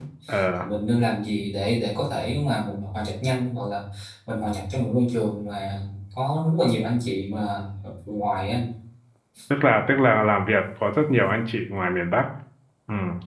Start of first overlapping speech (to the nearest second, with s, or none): none